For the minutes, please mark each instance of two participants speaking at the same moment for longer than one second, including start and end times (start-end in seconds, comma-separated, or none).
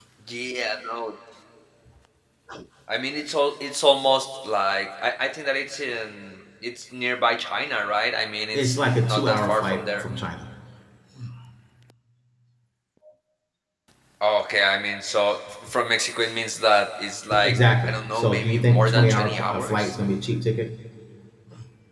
8.5-9.8, 17.4-19.9